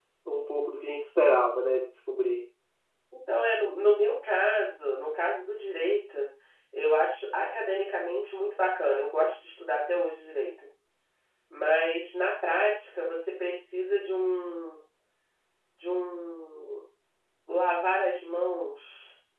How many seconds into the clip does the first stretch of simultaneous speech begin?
none

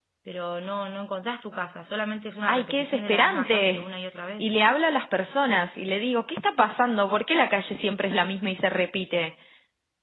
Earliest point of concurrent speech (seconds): 2.5 s

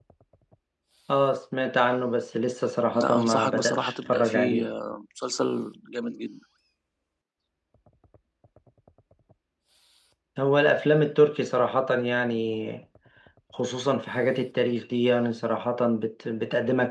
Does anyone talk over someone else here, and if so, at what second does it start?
2.9 s

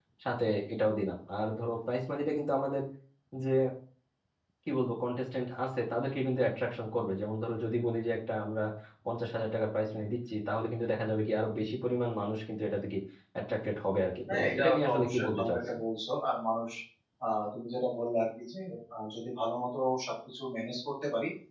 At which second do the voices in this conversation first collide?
14.3 s

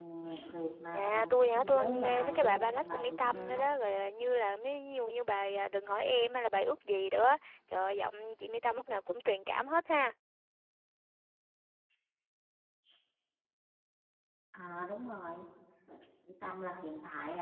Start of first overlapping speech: 0.9 s

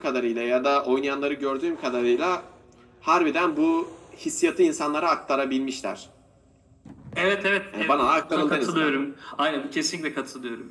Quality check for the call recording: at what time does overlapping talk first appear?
7.7 s

